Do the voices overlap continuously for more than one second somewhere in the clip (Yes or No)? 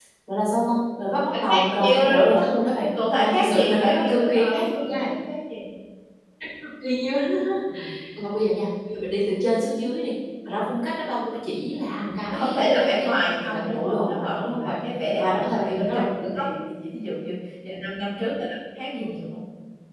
Yes